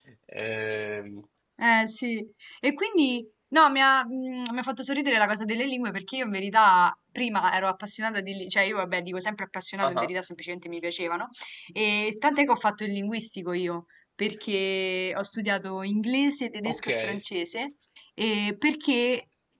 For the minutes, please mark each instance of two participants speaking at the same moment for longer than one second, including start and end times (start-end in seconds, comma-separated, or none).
none